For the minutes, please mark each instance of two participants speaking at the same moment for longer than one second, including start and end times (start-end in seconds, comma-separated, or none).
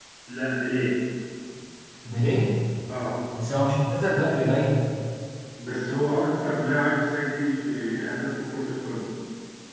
none